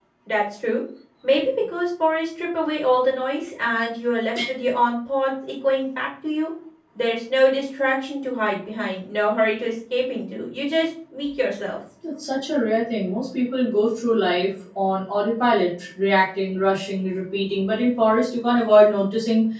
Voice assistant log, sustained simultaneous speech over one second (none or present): none